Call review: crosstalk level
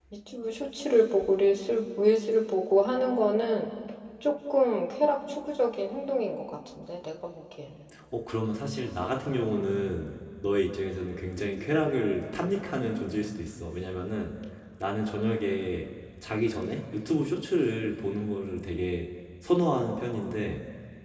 none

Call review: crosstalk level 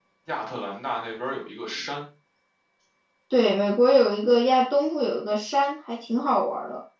none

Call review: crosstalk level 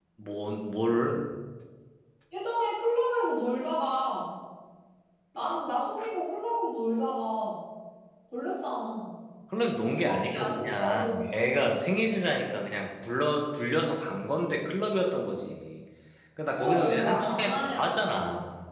present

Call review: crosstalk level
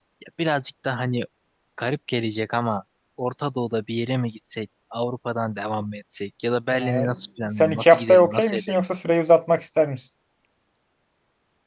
present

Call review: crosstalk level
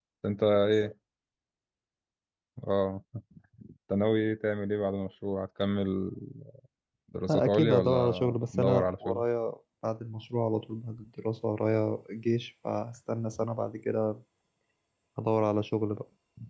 present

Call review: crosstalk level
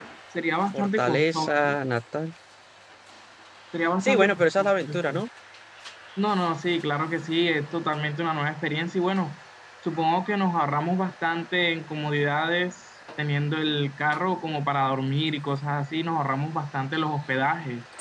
present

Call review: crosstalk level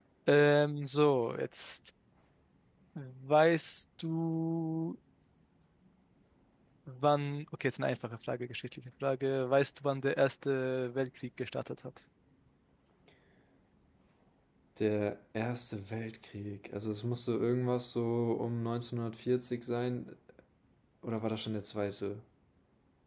none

